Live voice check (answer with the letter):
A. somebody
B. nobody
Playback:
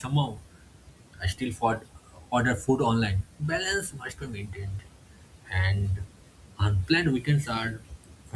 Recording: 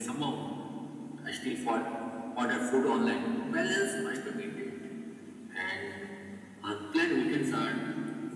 B